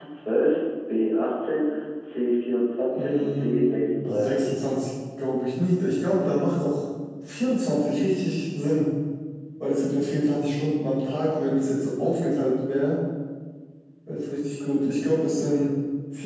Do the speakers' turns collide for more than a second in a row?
Yes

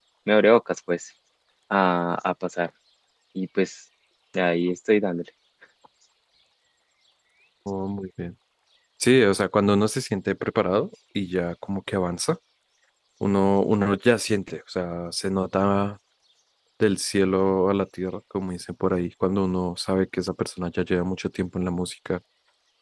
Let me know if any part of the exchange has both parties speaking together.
No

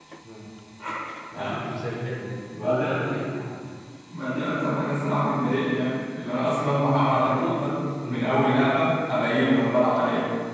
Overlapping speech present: Yes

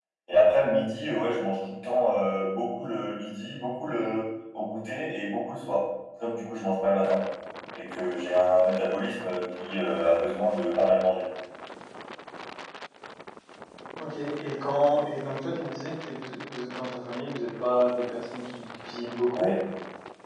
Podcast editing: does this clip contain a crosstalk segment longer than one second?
No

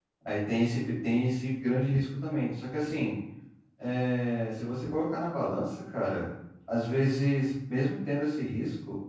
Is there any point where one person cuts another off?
No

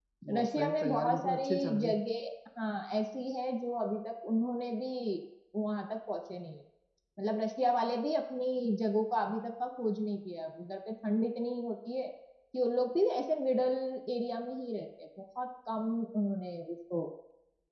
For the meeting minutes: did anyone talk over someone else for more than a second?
Yes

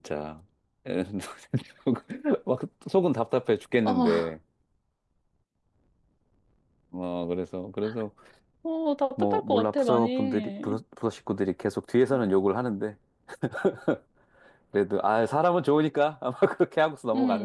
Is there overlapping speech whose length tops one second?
Yes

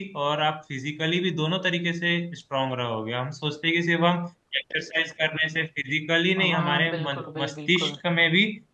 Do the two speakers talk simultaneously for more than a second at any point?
Yes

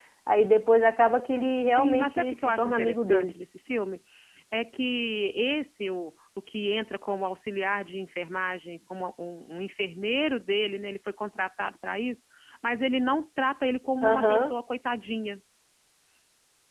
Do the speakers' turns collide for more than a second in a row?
Yes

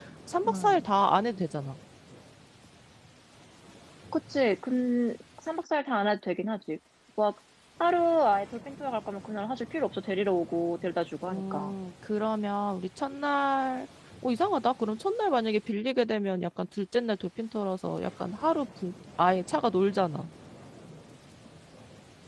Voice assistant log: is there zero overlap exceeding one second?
Yes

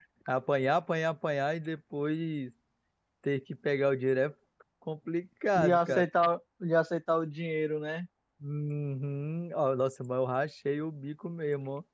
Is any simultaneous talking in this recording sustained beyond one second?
No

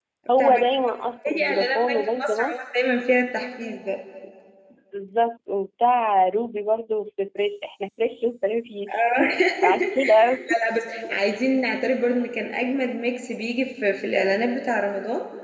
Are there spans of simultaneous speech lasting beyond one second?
Yes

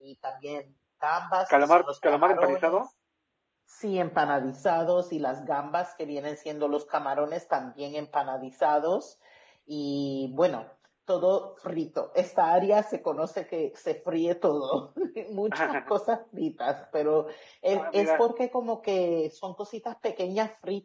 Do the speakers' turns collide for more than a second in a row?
Yes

